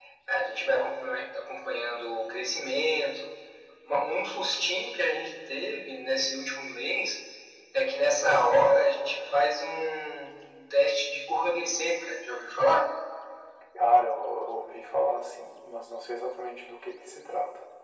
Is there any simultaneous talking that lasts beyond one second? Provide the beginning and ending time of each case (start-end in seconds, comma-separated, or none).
none